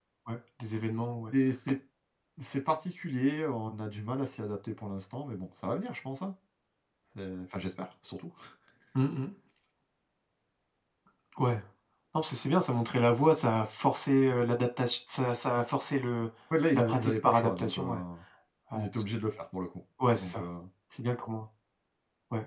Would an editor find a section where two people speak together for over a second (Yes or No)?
Yes